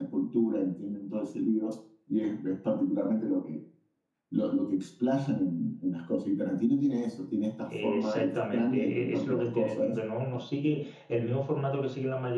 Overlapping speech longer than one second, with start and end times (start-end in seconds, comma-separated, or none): 7.8-10.0